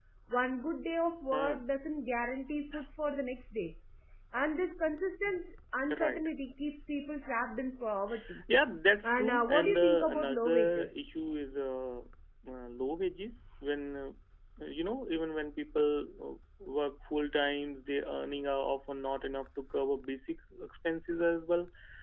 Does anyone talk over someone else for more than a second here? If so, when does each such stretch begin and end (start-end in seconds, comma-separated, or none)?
9.0-11.0